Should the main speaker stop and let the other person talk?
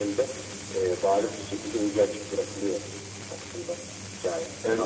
Yes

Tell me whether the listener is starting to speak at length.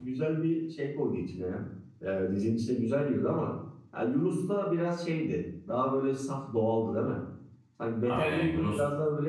No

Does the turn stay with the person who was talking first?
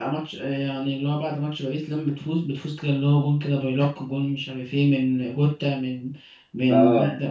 Yes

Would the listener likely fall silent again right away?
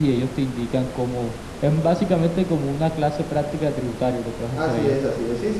No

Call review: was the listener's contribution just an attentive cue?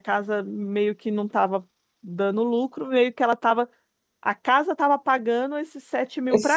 No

